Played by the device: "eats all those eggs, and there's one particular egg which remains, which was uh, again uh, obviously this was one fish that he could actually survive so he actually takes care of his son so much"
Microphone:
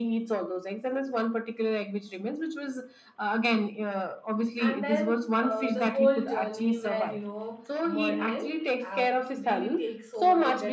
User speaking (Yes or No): Yes